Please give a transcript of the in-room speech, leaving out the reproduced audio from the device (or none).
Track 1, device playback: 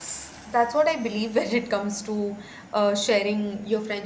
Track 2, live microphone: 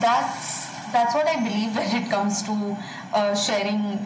none